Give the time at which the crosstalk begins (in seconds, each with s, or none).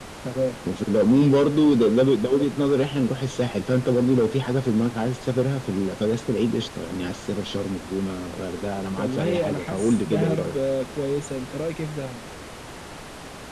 9.0 s